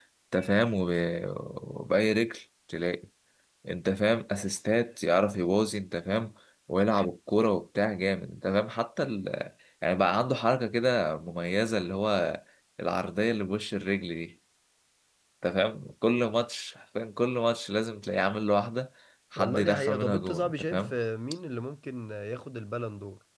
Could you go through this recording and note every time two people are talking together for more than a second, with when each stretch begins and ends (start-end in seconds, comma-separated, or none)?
19.4-20.9